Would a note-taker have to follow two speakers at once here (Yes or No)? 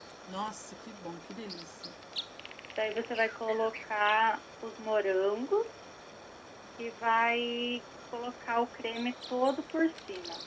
No